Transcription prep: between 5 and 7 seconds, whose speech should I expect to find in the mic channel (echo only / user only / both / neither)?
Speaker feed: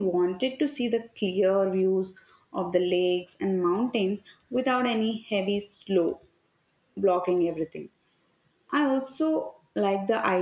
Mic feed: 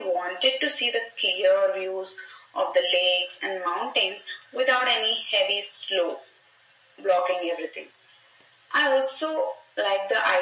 echo only